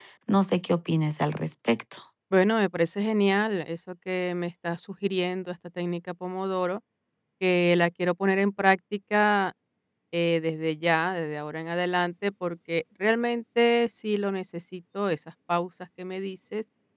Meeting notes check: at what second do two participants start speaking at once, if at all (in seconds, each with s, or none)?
none